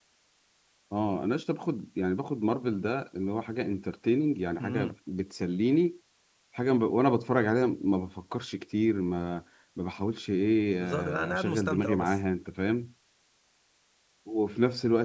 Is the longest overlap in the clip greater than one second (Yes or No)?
Yes